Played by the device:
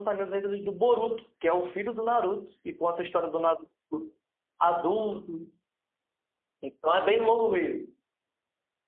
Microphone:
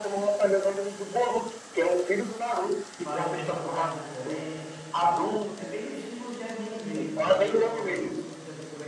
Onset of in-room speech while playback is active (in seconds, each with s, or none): 3.0 s